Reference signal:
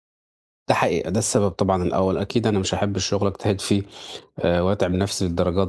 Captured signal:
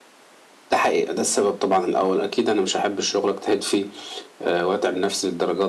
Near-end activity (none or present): none